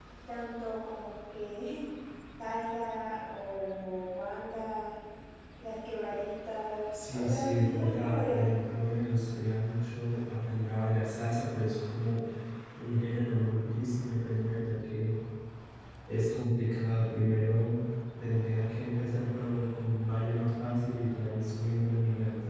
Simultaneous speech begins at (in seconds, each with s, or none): 6.9 s